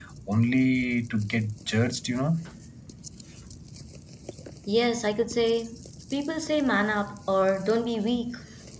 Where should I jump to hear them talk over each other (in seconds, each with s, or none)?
none